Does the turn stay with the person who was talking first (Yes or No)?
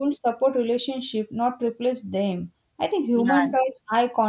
Yes